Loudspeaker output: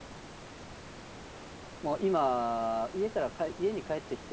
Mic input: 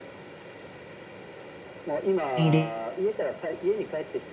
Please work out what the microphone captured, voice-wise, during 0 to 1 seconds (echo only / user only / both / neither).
neither